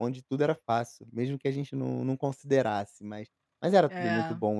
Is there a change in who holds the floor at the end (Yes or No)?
No